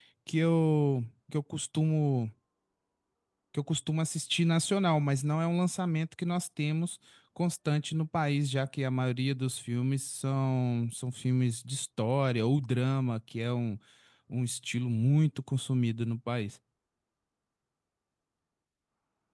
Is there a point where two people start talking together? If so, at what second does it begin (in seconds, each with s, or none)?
none